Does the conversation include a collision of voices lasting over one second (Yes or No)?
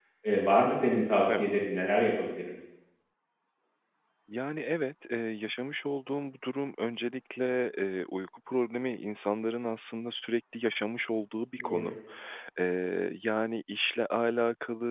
No